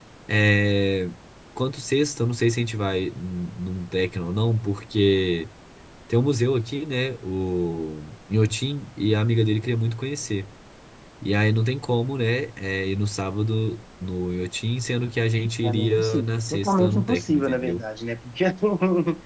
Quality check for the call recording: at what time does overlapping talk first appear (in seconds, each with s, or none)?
15.6 s